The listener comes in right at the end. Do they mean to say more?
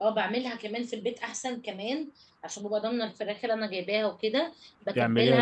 No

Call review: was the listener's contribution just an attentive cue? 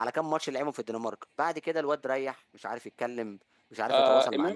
No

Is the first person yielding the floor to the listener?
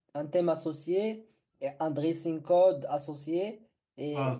No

